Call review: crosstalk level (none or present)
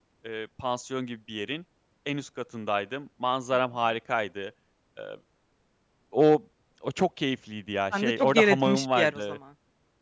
present